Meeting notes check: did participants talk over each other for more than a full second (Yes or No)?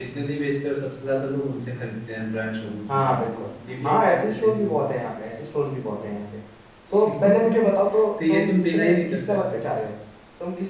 Yes